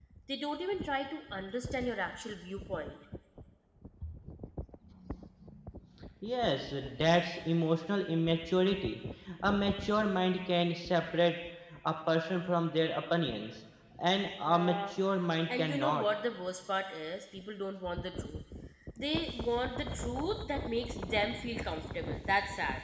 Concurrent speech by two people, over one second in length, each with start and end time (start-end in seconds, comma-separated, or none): none